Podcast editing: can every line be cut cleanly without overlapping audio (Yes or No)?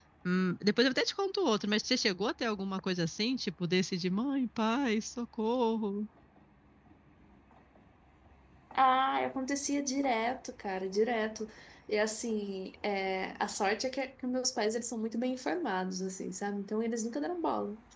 Yes